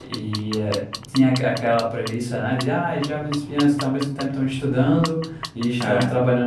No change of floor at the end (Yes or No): Yes